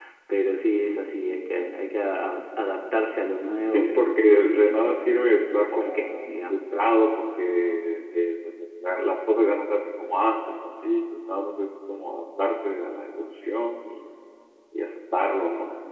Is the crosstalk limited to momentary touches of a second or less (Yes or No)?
No